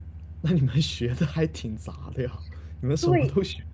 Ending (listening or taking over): listening